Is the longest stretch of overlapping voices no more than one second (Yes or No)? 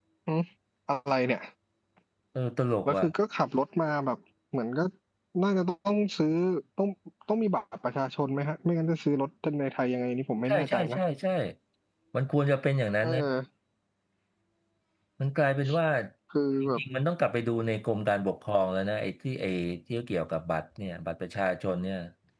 Yes